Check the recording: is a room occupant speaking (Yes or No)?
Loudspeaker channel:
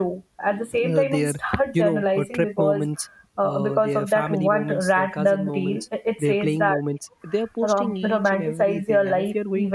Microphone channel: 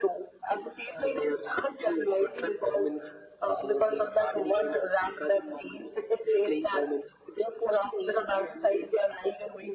No